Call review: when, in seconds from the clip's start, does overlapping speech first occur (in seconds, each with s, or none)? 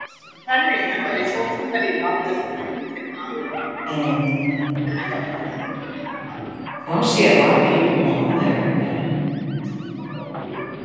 none